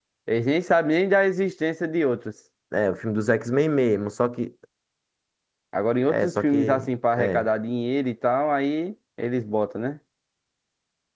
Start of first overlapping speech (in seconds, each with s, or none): 6.1 s